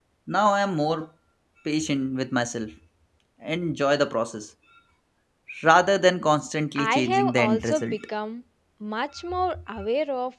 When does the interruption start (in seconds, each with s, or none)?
6.8 s